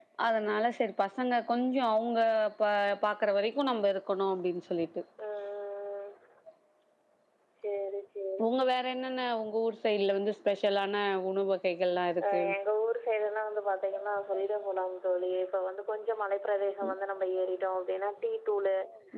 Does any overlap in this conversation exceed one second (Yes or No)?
No